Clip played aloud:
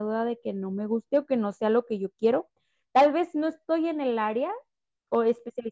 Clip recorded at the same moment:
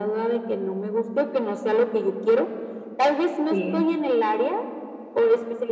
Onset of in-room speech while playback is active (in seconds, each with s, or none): 3.5 s